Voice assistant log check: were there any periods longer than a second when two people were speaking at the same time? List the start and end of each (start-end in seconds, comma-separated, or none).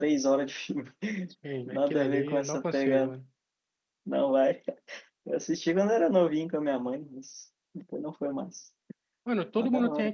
1.6-3.1